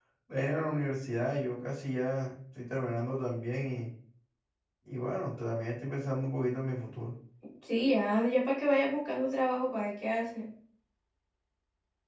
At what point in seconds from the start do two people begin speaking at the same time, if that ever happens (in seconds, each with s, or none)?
none